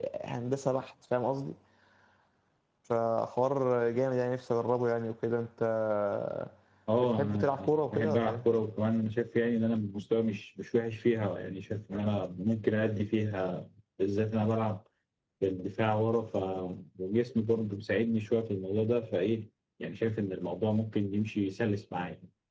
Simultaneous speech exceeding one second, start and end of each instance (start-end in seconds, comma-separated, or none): 7.0-8.4